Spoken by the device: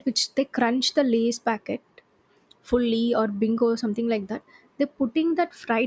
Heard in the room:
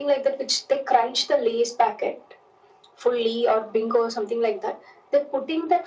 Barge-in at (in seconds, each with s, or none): none